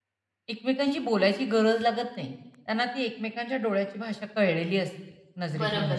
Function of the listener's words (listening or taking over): taking over